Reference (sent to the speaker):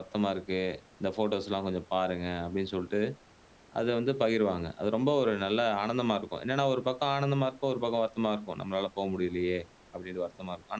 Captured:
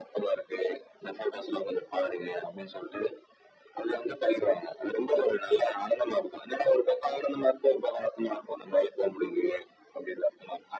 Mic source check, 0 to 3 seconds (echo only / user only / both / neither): echo only